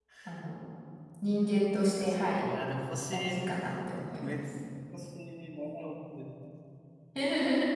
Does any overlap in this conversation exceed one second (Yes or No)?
No